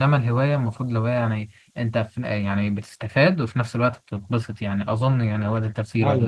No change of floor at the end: No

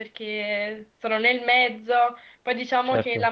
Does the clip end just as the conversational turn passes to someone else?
No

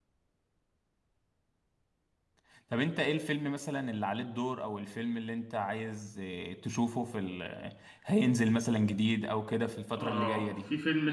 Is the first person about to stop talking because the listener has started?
Yes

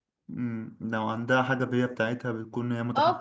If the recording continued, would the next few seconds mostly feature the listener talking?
Yes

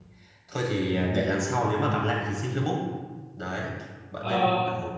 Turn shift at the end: No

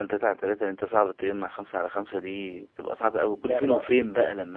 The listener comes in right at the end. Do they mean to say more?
No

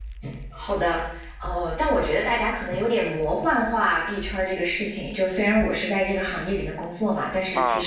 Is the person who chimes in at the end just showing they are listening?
Yes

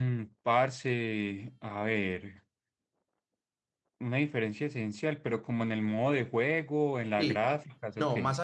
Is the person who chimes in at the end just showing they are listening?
No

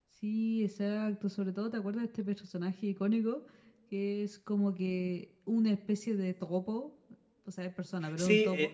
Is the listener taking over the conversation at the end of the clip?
Yes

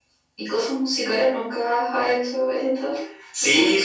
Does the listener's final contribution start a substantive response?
Yes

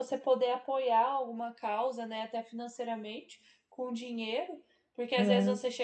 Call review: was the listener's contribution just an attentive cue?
Yes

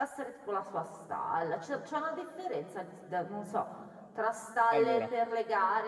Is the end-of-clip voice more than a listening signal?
No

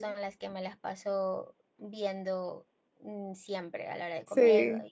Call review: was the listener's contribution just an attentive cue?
Yes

